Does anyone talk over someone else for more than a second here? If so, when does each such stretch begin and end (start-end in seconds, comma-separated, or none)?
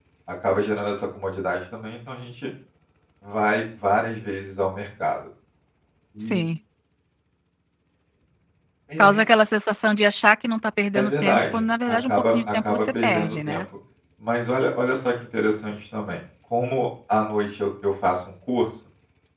10.9-13.6